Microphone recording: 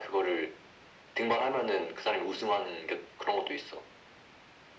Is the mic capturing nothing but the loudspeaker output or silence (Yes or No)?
Yes